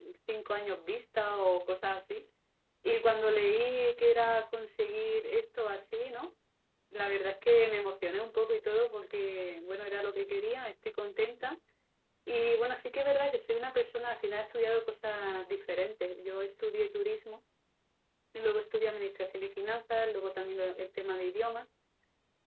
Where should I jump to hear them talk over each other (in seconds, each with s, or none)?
none